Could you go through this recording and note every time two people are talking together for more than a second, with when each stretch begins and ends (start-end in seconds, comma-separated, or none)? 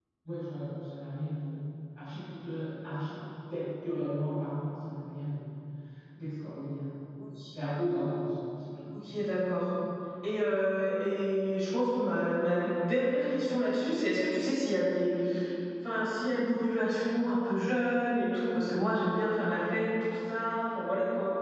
none